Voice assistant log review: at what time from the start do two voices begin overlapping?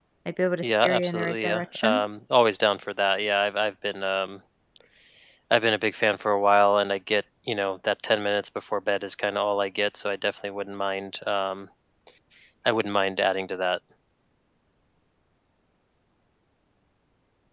0.6 s

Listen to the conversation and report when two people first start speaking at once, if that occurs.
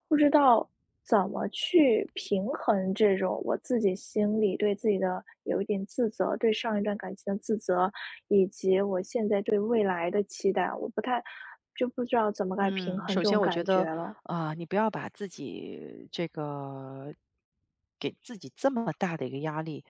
12.6 s

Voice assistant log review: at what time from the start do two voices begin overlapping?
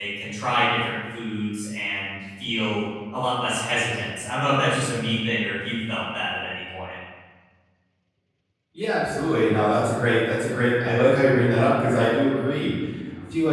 none

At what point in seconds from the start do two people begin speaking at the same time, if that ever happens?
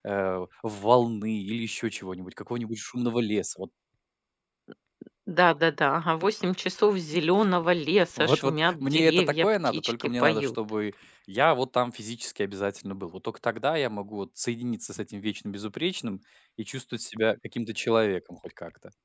8.2 s

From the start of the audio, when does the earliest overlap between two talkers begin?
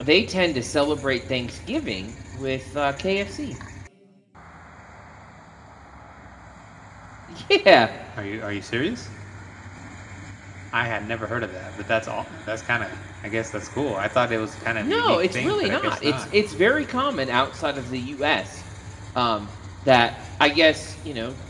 14.8 s

